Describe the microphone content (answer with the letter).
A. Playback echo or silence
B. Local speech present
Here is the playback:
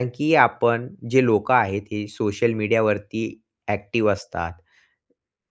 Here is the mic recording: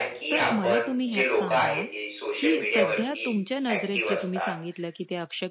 B